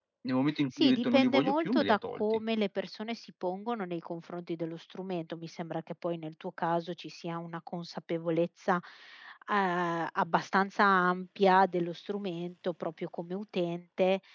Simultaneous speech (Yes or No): Yes